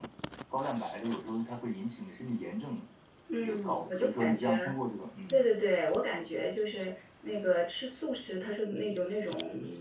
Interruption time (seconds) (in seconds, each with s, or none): 3.4 s